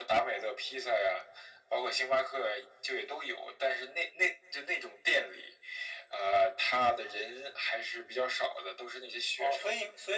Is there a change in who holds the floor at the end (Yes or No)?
Yes